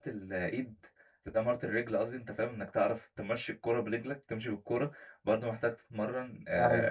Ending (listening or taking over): listening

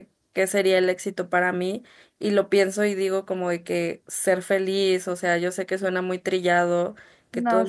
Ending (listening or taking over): listening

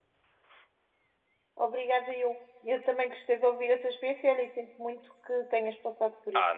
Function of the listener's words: taking over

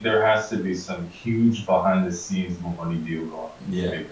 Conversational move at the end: taking over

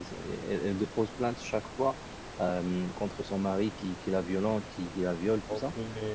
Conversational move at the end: listening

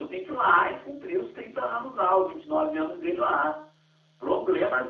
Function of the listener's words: listening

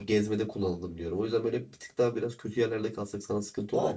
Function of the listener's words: taking over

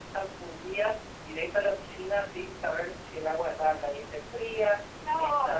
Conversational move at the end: taking over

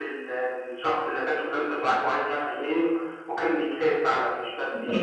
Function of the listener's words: taking over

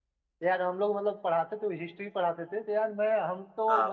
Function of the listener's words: listening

